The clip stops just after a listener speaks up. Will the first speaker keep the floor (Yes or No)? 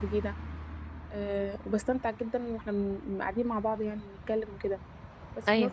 Yes